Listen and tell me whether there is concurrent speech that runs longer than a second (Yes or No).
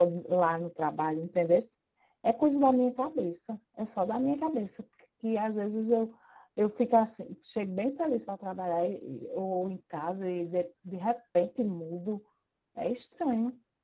No